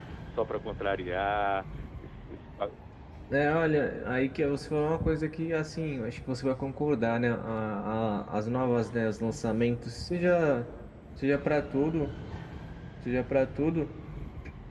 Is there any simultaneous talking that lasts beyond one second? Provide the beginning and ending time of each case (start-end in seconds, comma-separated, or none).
none